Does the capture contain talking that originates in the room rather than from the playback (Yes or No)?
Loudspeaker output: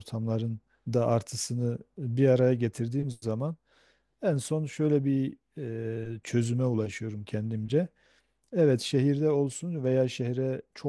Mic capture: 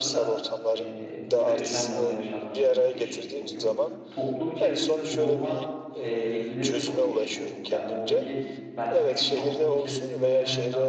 Yes